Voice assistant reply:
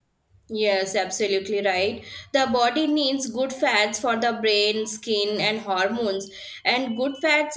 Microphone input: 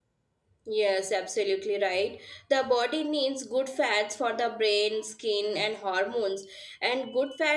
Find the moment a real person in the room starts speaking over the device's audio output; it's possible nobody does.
none

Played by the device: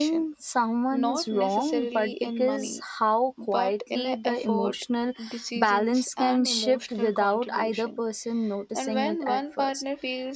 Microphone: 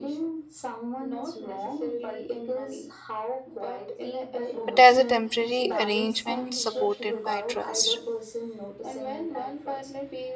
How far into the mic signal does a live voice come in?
4.7 s

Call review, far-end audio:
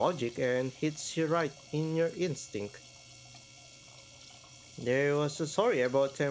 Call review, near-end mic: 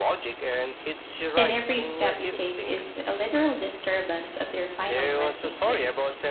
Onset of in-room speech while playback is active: 1.3 s

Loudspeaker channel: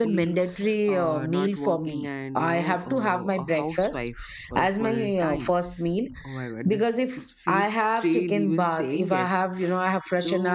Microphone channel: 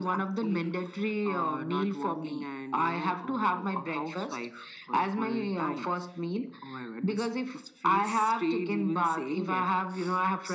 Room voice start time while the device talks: none

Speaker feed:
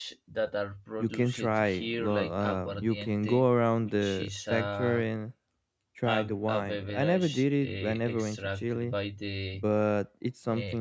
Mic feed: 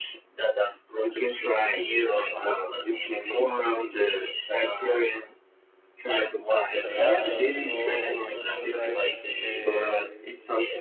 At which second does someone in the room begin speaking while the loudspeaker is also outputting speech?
6.7 s

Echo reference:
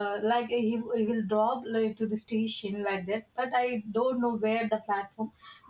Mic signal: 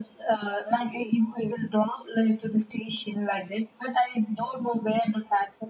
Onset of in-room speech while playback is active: none

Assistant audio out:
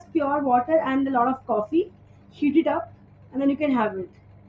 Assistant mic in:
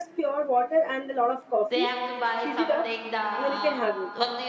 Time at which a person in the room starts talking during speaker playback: 1.7 s

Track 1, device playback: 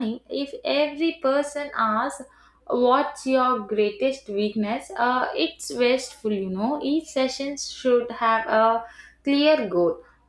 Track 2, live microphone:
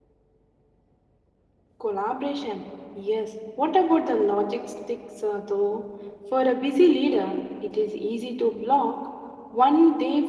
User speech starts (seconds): 1.8 s

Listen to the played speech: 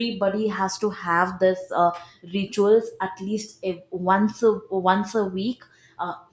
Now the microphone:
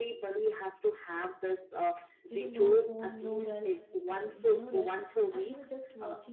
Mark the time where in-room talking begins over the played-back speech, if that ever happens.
2.3 s

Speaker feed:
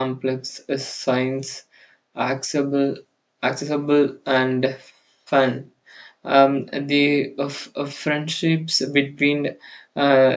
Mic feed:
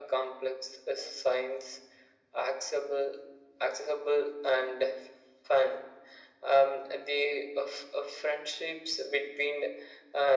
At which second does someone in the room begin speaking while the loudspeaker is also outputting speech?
none

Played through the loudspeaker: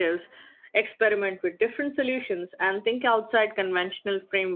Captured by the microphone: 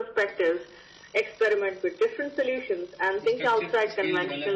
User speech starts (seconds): 3.2 s

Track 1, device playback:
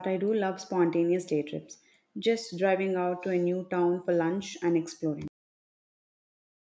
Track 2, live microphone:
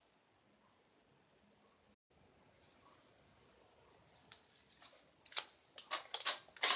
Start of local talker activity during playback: none

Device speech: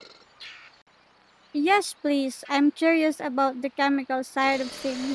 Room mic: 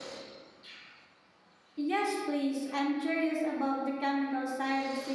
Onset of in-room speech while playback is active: none

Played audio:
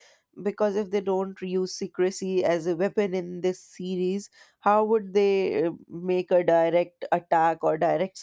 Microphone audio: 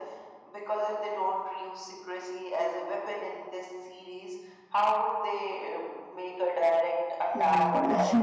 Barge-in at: 7.3 s

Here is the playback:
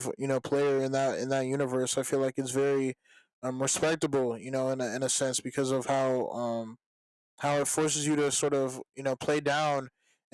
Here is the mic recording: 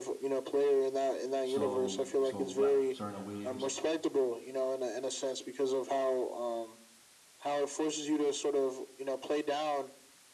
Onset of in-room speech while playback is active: 1.4 s

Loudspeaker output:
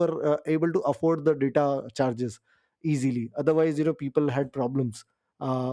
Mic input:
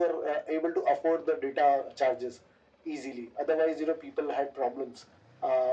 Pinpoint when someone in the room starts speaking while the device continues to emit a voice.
none

